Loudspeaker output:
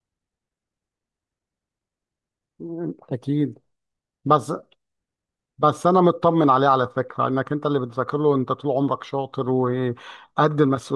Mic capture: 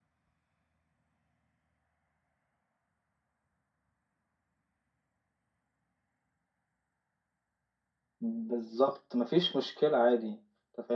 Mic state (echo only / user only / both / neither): user only